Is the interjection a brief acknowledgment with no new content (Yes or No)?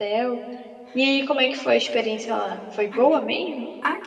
No